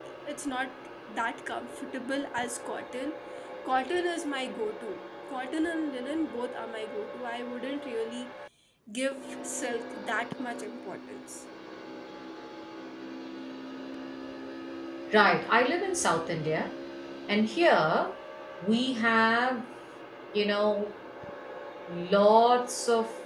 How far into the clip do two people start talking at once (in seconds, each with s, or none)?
none